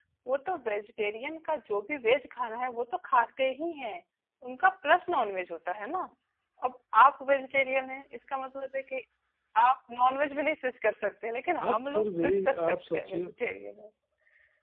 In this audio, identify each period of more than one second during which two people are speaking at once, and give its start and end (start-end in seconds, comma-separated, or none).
11.6-13.2